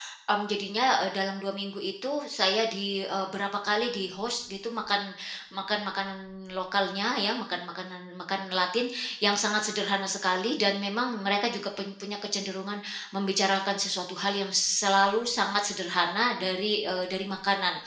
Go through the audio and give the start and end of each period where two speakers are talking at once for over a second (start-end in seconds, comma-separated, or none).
none